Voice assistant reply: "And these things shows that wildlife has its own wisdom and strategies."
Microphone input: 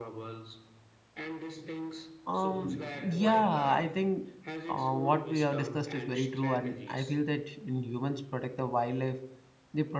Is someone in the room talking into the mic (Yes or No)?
Yes